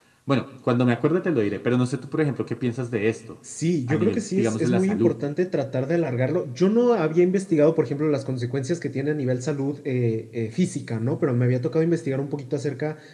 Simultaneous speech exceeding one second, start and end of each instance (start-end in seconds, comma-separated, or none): 3.9-5.1